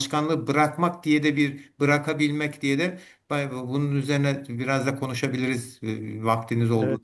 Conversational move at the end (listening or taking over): taking over